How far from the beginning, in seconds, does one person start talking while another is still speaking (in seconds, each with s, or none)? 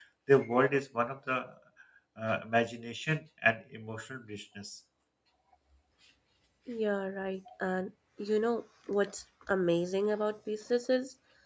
none